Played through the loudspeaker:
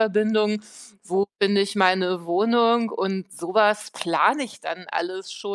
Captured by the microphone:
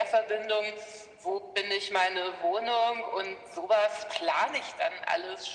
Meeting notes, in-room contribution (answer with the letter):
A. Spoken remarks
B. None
B